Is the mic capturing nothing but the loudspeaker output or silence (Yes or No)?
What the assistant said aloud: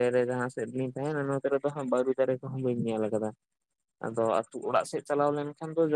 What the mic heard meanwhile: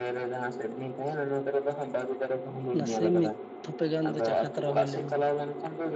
No